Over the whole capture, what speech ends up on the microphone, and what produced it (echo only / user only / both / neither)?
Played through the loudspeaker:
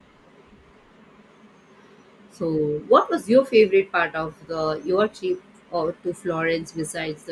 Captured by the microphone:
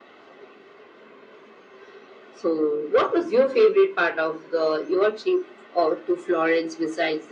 echo only